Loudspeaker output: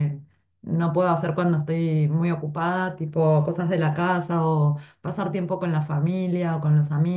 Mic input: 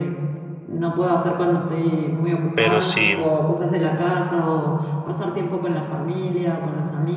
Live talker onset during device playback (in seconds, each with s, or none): 2.5 s